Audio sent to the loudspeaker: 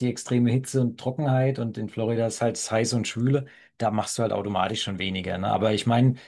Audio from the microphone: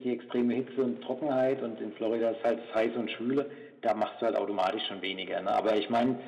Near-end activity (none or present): none